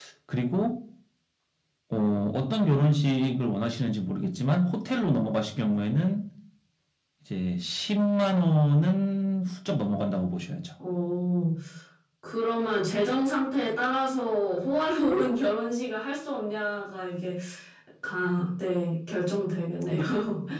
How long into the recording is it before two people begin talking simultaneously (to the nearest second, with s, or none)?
none